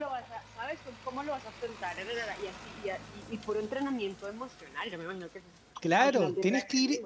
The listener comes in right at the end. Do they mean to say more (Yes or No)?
Yes